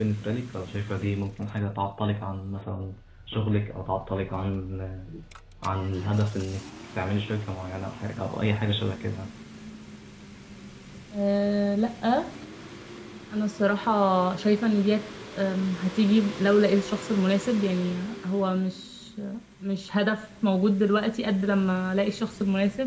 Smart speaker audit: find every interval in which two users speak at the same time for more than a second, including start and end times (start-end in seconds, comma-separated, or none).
none